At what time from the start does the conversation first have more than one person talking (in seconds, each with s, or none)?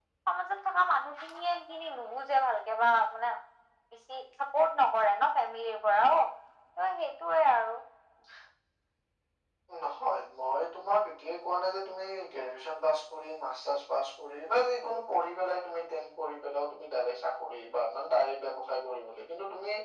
none